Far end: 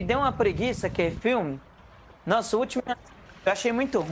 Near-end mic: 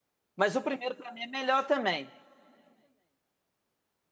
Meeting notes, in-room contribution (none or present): present